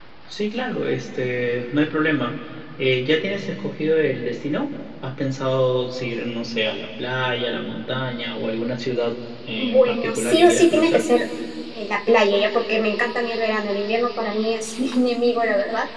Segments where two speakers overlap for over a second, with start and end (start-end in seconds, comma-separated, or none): 9.6-11.0